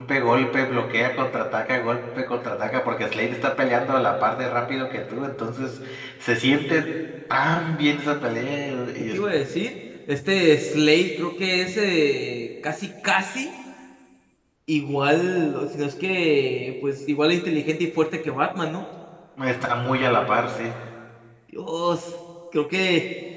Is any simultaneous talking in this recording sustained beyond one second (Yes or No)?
No